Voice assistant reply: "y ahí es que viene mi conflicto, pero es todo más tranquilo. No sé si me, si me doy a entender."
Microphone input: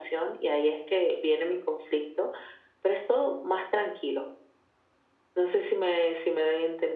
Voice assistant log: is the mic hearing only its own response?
Yes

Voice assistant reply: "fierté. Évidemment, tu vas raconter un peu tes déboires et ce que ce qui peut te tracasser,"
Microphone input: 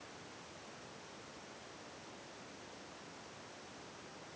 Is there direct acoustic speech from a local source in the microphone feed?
No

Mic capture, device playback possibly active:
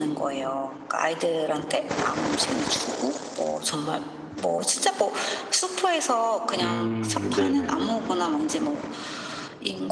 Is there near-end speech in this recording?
Yes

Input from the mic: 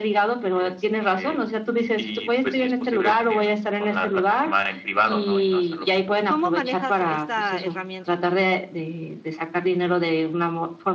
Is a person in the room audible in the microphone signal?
Yes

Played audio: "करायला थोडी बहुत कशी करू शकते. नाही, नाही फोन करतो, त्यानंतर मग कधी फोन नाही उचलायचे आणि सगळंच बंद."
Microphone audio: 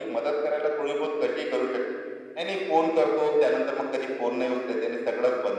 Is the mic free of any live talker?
Yes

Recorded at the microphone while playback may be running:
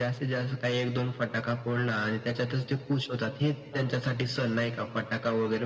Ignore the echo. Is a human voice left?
Yes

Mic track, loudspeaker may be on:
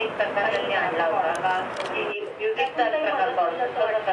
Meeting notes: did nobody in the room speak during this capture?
Yes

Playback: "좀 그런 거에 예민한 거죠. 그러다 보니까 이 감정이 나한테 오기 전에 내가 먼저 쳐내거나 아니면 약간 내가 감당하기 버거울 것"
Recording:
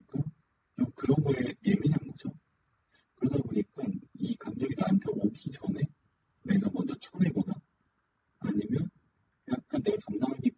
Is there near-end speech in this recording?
No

